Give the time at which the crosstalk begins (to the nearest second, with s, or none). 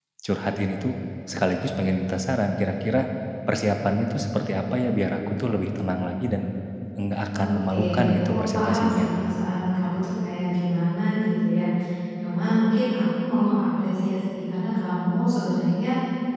7 s